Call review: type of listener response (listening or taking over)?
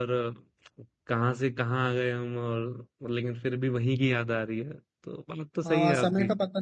taking over